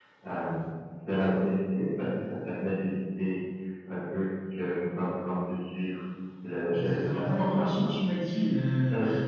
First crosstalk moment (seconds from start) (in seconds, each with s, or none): 6.7 s